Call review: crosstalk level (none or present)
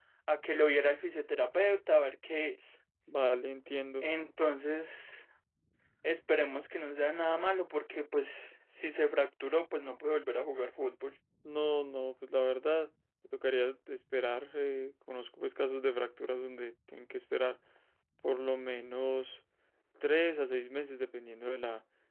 none